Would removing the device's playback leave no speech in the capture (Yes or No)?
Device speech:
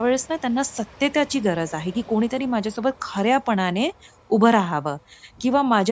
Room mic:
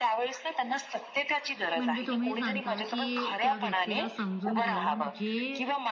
No